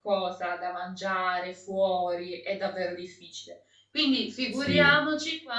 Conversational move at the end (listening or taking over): listening